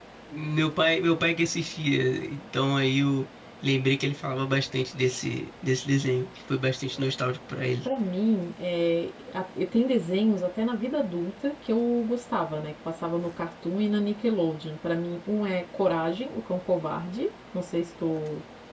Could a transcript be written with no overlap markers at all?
Yes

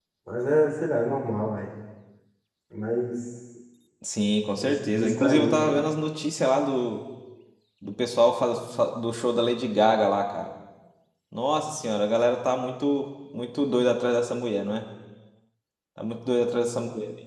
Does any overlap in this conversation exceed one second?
Yes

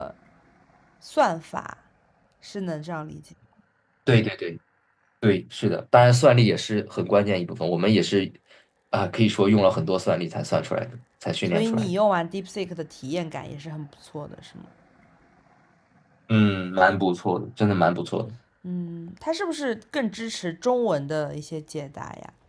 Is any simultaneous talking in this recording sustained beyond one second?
No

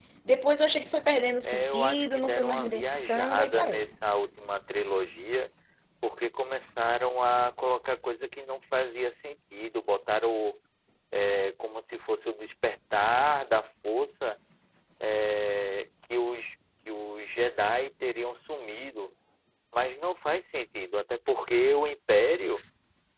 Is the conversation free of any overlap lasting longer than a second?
No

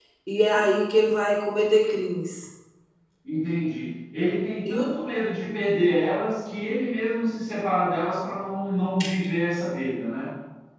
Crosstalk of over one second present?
No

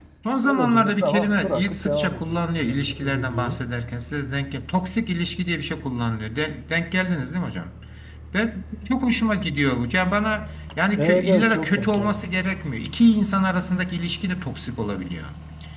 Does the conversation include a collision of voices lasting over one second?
Yes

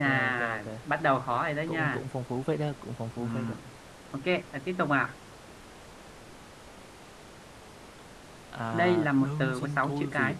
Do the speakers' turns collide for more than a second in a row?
Yes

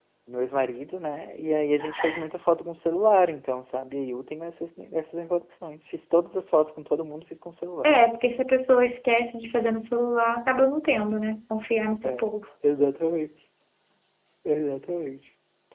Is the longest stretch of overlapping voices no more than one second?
Yes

